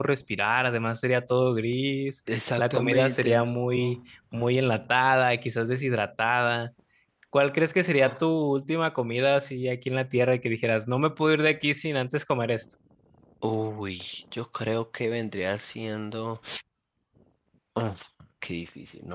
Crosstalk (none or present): present